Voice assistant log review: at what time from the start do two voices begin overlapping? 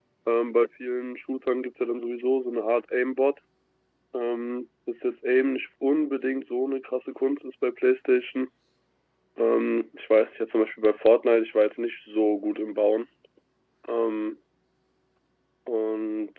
none

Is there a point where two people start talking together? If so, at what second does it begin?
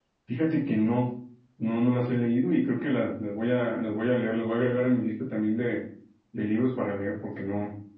none

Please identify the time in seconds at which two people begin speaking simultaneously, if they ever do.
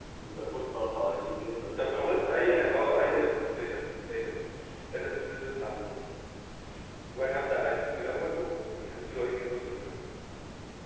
1.8 s

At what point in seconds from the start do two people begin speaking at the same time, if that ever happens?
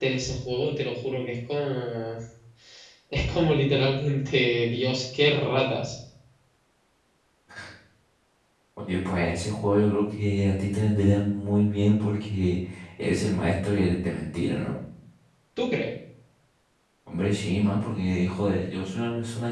none

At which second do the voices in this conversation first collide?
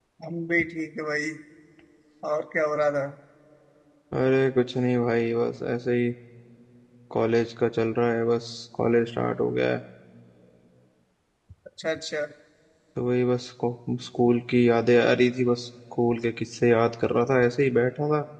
none

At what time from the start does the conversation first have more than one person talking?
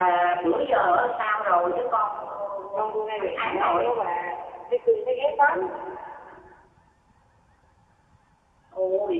2.8 s

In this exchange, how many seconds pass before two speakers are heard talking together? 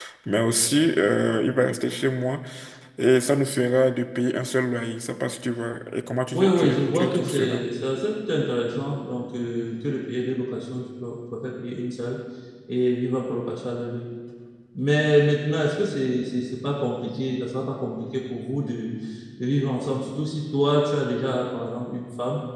6.3 s

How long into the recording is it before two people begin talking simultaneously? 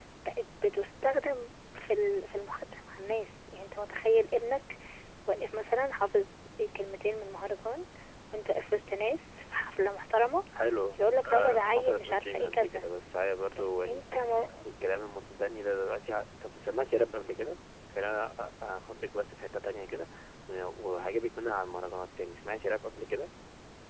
11.0 s

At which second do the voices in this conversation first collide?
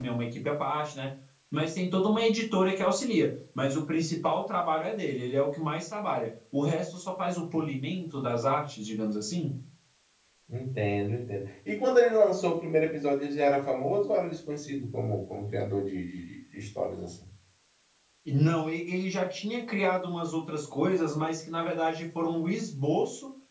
none

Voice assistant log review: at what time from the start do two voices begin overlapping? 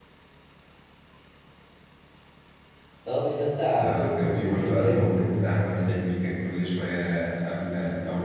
3.8 s

